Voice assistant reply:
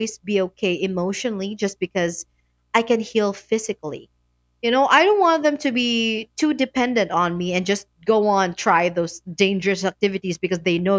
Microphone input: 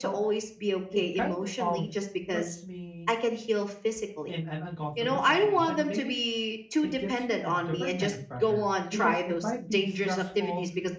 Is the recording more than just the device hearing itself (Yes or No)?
Yes